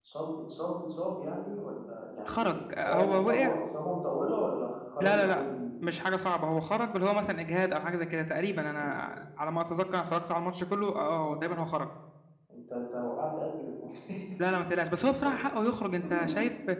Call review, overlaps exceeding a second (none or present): present